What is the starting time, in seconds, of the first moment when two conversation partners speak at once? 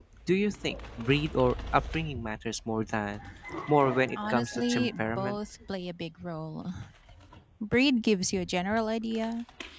4.2 s

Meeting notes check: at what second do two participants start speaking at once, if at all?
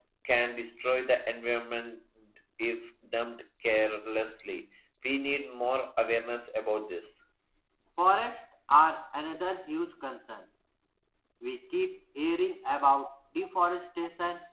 none

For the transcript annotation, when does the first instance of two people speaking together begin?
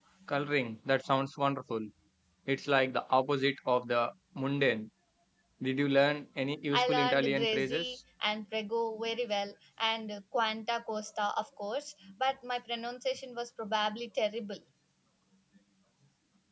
6.7 s

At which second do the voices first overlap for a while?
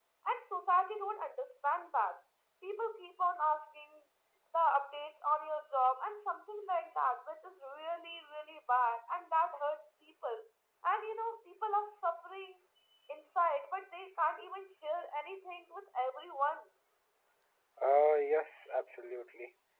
none

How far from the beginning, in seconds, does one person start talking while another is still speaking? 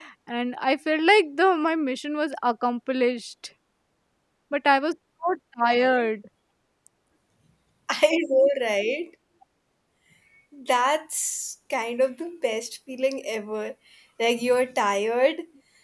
none

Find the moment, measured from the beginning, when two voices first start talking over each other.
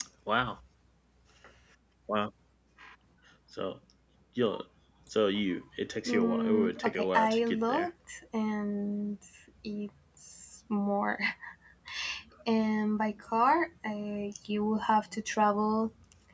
6.0 s

